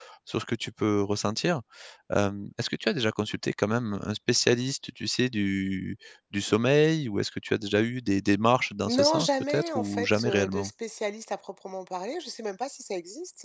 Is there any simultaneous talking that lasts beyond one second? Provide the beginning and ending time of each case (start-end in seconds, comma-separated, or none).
8.9-10.7